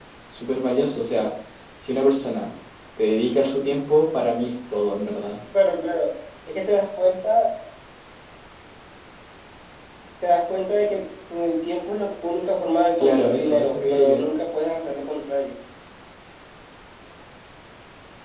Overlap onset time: 13.0 s

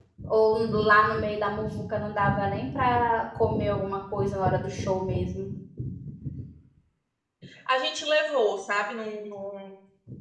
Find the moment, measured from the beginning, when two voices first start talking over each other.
none

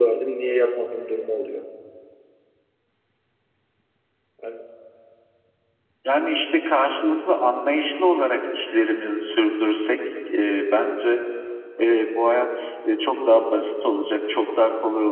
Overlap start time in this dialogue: none

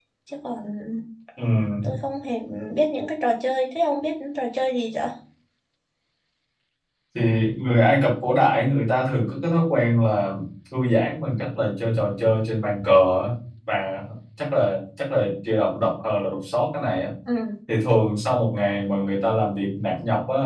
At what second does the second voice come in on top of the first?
none

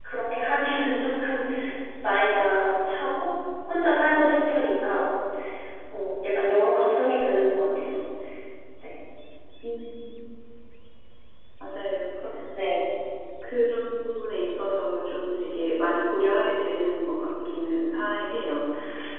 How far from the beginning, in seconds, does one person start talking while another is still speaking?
none

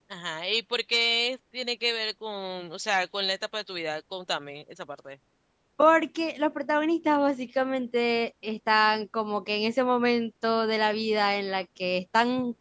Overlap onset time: none

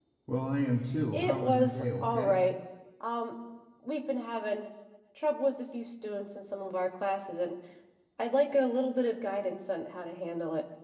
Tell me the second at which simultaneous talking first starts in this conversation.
1.1 s

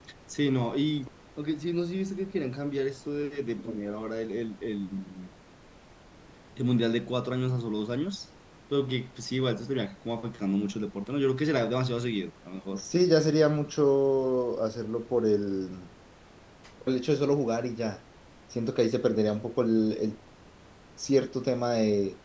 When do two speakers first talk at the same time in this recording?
none

